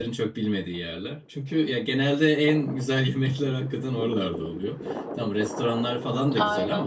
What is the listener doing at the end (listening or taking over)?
listening